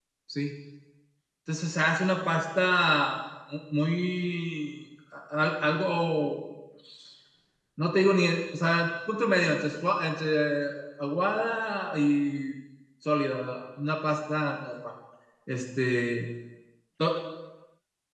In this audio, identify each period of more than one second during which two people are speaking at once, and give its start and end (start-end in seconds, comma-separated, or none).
none